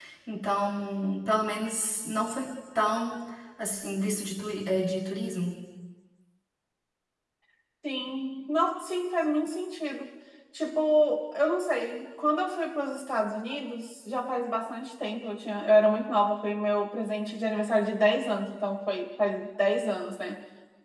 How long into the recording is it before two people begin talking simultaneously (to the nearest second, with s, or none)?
none